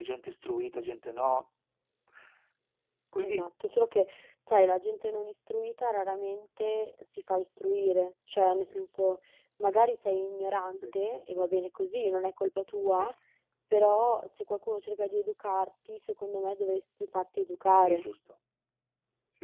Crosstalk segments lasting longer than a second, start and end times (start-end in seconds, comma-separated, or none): none